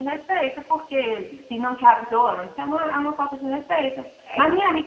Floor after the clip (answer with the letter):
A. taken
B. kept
B